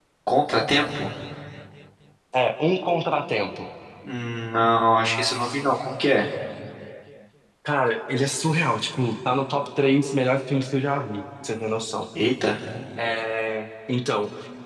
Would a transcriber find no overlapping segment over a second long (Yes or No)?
Yes